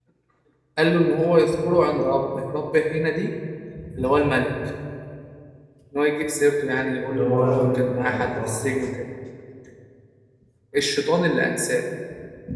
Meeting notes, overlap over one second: present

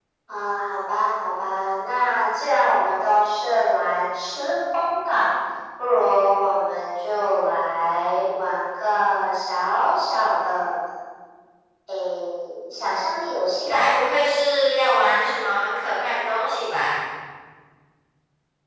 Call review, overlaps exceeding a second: none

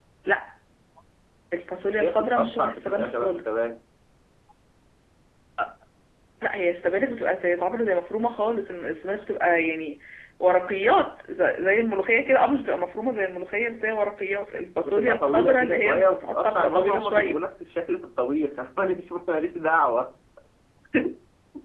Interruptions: present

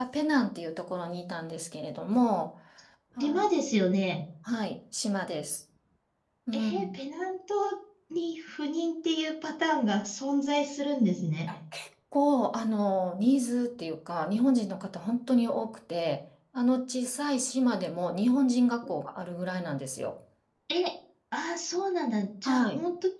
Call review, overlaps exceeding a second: none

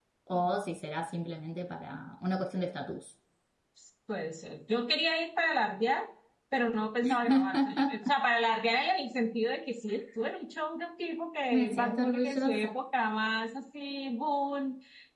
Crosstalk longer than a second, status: present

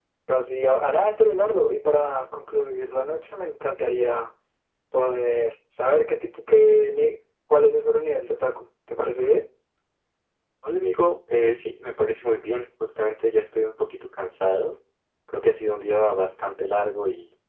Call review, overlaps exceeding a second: none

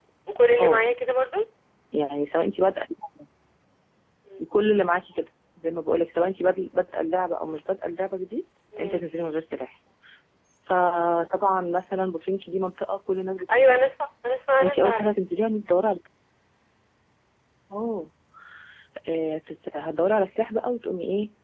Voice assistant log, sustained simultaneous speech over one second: none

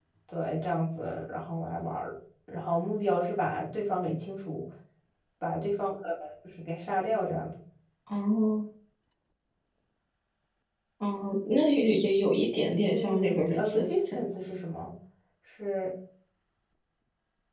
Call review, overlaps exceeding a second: present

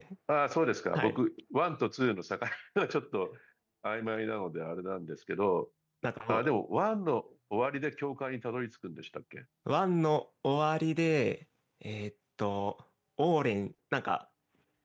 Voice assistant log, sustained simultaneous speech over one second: none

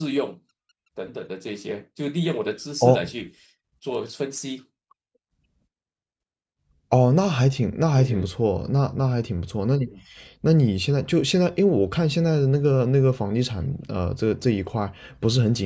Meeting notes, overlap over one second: none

